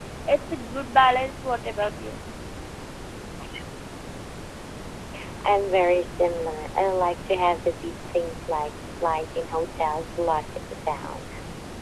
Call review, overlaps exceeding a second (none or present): none